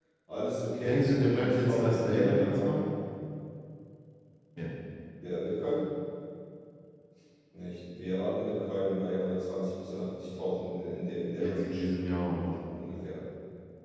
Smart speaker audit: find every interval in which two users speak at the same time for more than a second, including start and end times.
0.8-2.8

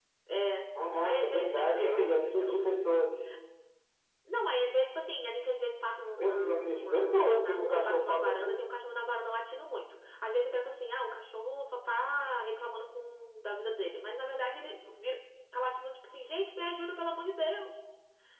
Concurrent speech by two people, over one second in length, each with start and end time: 1.0-2.6, 6.2-8.5

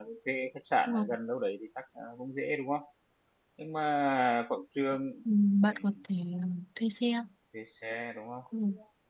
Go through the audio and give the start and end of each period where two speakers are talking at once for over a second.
none

